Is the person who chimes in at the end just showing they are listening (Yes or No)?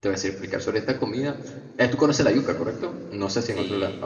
No